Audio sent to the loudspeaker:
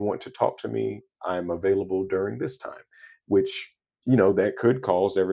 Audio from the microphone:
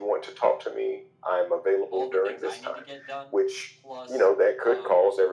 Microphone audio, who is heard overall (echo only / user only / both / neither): both